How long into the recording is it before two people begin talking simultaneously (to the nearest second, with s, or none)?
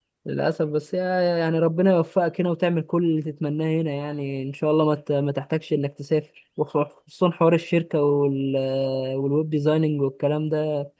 none